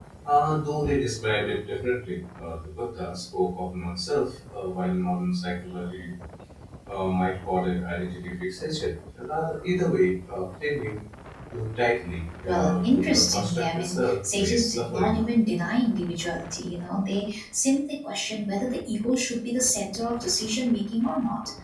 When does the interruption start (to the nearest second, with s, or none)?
12 s